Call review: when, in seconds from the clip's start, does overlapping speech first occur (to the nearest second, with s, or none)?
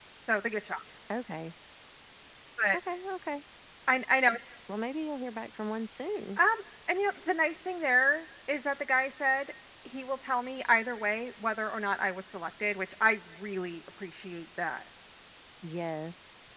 none